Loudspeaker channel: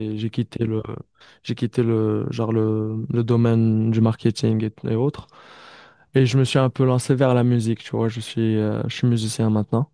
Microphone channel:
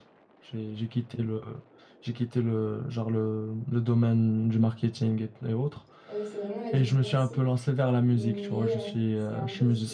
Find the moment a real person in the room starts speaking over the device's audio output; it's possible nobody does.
6 s

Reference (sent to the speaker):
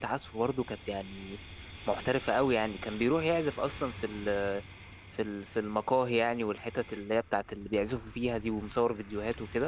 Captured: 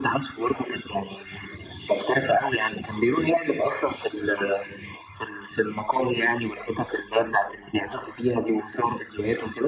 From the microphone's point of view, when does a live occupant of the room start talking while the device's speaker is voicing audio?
none

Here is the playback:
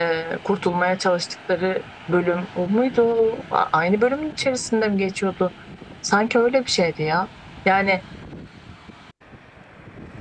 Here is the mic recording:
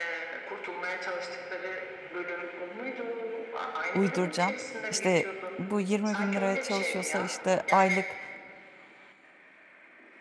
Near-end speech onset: 4 s

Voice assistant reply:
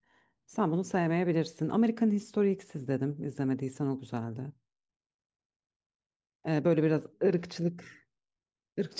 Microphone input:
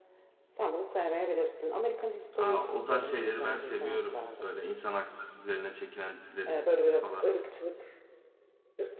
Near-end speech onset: 2 s

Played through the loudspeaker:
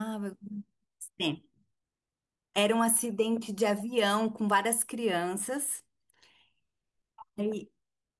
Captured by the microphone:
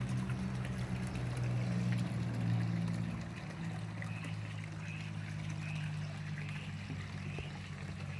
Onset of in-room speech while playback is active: none

